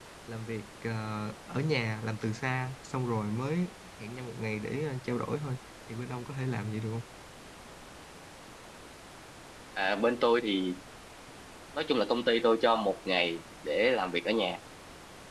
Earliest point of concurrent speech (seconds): none

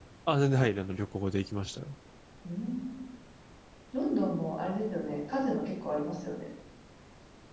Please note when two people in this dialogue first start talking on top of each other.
none

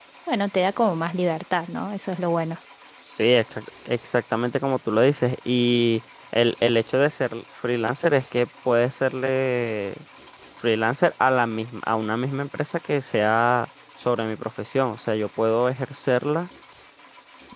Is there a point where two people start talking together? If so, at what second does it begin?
none

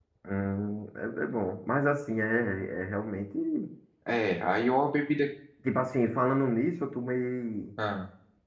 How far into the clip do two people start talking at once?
none

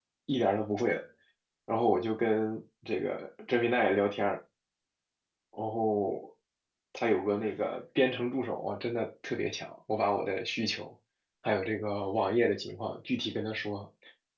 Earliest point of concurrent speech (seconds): none

